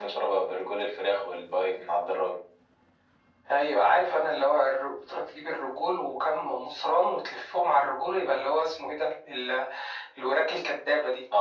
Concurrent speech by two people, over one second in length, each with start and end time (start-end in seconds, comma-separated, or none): none